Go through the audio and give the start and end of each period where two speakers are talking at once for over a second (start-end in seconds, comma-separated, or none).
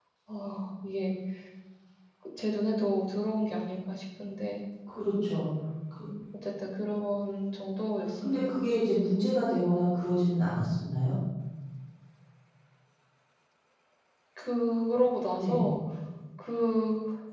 none